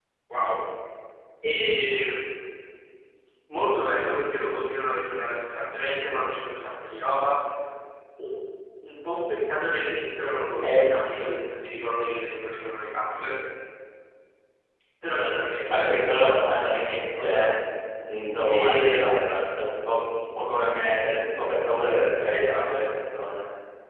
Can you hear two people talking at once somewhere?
Yes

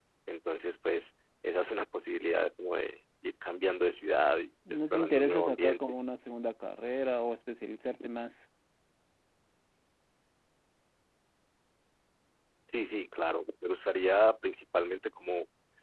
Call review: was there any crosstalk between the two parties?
Yes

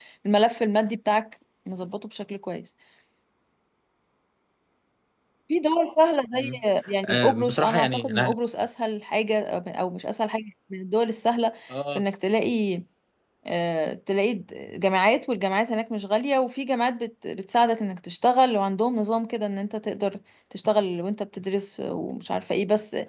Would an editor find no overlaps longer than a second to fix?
No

